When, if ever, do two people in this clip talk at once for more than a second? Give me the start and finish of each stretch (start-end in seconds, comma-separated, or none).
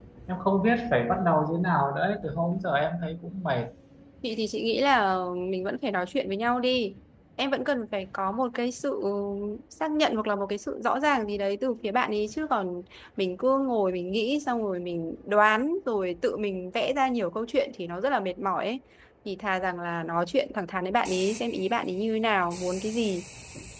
none